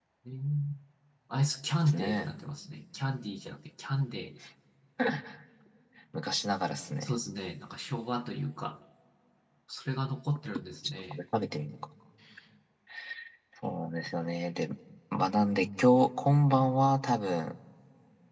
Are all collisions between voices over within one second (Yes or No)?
Yes